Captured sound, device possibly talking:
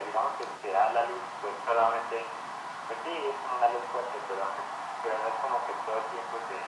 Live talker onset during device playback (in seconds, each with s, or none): none